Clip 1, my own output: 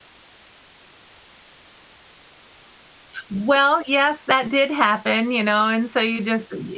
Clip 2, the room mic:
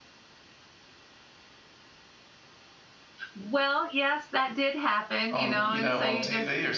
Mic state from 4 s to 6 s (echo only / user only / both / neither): both